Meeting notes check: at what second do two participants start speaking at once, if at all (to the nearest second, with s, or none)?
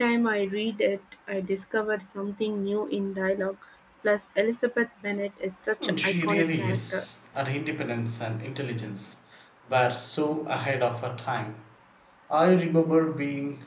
6 s